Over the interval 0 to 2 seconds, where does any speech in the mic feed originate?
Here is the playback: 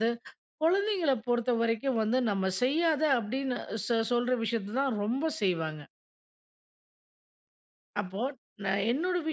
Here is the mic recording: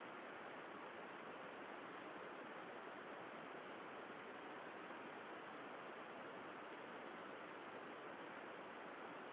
neither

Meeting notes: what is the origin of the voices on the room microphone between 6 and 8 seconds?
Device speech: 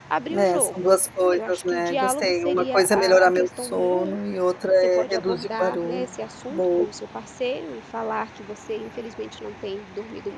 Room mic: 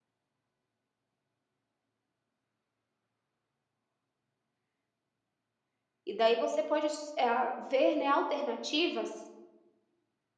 user only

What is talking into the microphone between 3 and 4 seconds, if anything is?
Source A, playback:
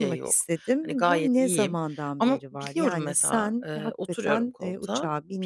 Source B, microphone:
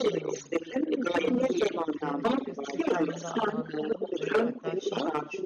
both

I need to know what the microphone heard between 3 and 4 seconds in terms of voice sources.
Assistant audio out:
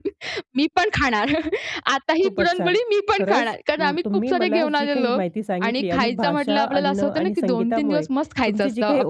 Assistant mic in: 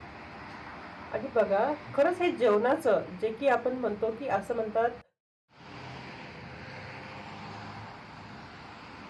user only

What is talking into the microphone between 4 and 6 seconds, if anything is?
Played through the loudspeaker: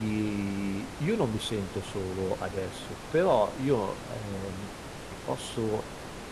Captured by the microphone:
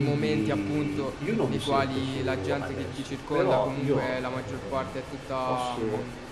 both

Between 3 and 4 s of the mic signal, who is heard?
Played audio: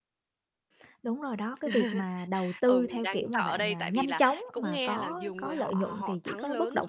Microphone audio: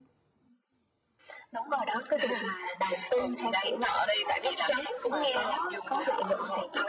echo only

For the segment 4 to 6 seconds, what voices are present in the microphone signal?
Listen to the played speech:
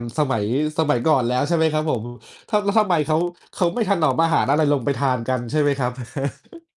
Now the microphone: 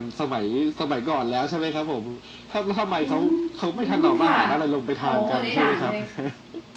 both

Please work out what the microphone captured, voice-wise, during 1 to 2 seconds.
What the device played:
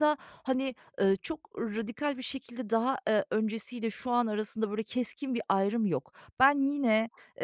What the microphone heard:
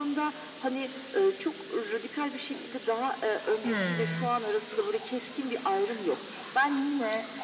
echo only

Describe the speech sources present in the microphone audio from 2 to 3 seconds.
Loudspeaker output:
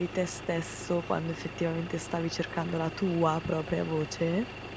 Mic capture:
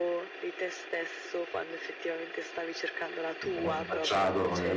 echo only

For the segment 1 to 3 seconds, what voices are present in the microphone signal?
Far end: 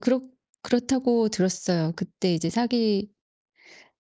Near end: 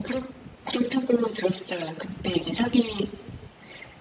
echo only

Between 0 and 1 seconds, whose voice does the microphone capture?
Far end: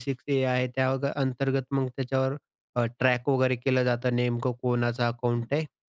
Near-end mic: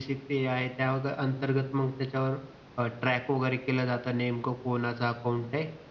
echo only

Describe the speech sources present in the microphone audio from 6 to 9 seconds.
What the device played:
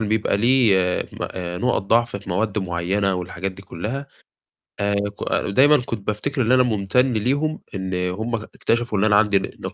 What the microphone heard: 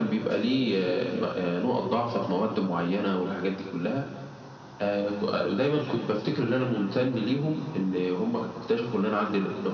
echo only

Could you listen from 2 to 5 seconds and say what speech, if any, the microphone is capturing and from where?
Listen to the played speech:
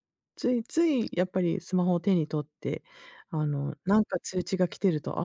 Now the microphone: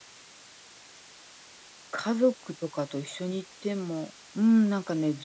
user only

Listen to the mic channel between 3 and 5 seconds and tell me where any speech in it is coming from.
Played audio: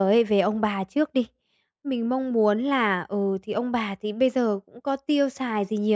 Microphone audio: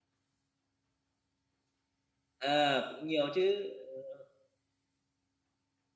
user only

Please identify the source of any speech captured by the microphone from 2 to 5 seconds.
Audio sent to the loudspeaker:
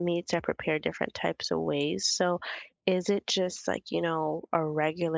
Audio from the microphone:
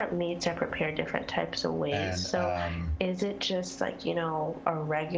both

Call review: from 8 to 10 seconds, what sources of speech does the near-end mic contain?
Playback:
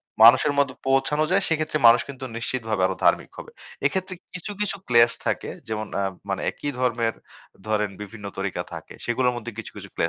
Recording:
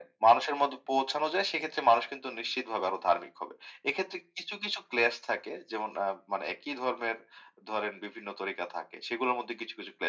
echo only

